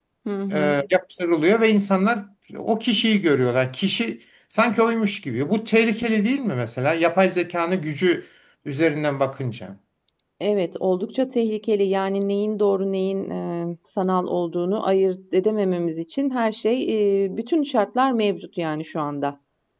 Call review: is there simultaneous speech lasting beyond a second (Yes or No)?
No